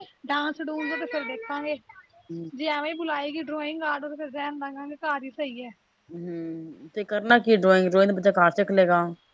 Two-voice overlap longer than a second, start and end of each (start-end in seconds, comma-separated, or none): none